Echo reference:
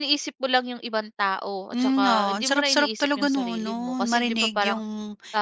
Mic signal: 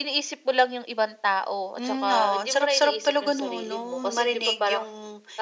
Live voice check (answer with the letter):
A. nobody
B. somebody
A